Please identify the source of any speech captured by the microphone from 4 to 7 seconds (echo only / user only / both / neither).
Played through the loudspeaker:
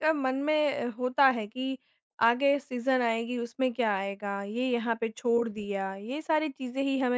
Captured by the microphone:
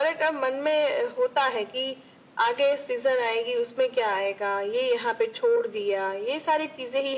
echo only